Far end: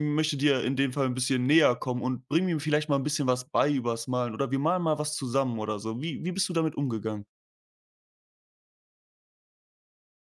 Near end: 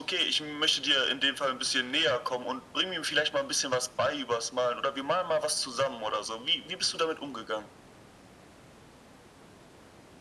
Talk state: echo only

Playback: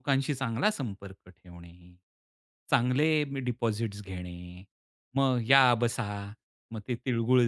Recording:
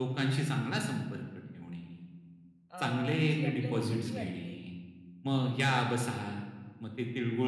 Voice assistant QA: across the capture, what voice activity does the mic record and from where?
both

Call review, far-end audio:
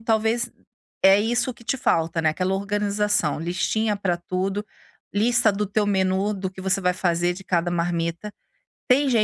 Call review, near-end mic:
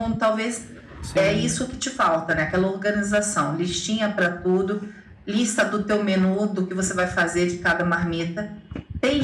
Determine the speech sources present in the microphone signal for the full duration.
both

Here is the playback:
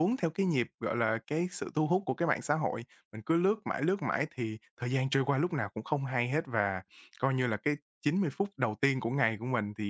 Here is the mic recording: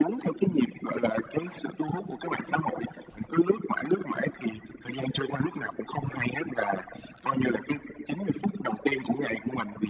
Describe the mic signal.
echo only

